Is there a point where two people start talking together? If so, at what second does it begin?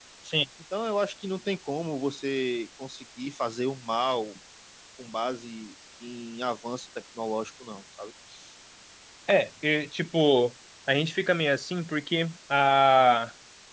none

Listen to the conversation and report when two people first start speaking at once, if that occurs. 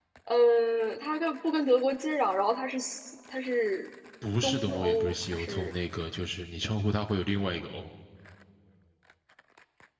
4.4 s

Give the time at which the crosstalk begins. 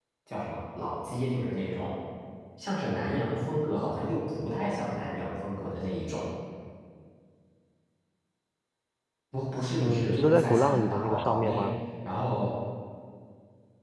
9.8 s

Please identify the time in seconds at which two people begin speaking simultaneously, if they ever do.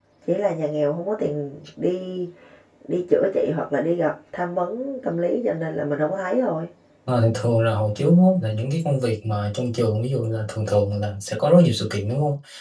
none

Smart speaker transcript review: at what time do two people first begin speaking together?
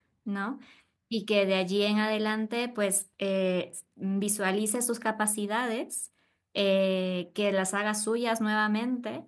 none

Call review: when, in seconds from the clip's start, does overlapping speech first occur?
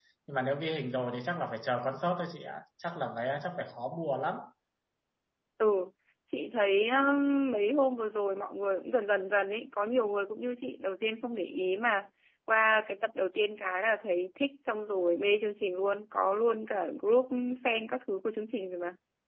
none

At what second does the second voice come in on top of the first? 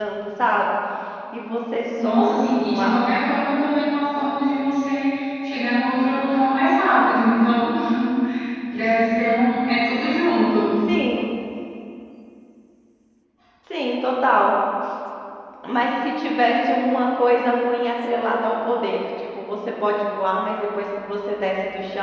2.0 s

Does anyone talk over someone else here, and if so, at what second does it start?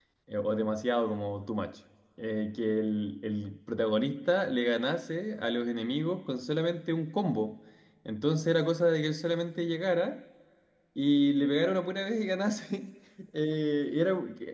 none

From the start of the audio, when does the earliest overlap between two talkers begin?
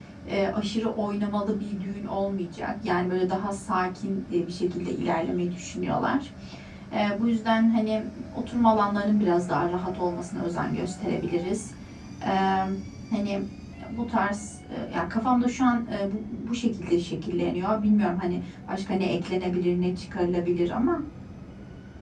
none

